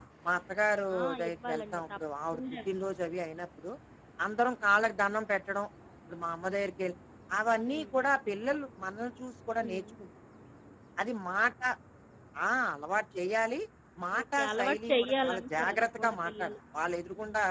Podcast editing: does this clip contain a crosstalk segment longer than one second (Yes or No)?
Yes